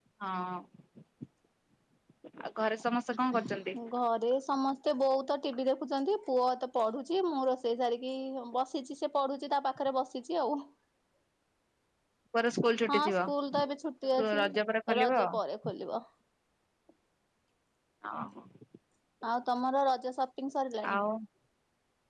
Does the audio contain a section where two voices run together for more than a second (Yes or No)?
No